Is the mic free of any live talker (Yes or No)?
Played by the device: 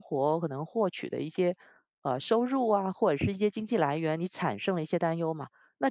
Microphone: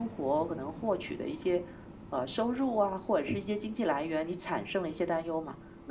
Yes